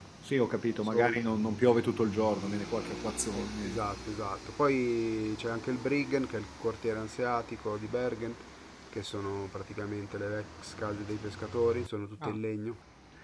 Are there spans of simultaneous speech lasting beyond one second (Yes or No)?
No